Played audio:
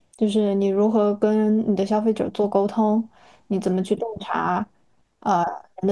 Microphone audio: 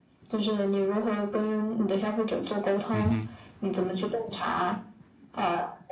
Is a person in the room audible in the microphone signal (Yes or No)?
Yes